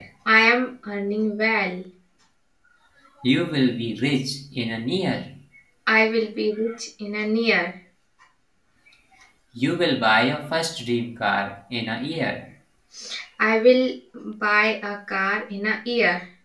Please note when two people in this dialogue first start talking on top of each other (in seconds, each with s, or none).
none